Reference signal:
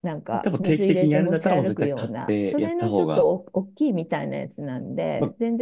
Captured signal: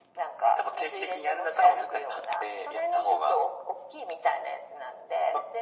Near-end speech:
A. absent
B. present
A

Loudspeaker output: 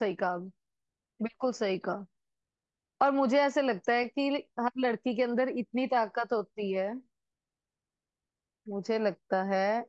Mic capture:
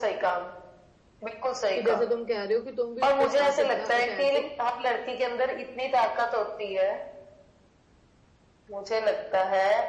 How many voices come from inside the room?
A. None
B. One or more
B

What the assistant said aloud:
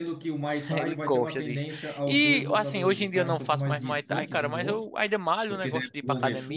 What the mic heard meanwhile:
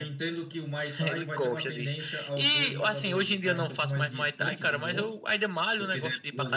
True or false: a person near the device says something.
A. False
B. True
A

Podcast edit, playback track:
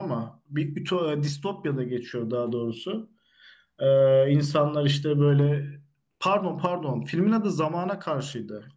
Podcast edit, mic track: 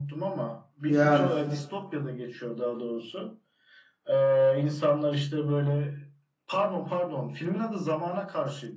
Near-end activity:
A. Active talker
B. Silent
A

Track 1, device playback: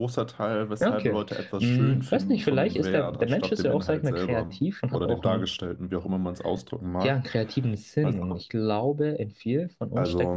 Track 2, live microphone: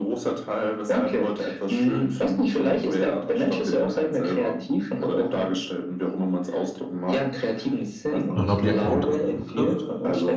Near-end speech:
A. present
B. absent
A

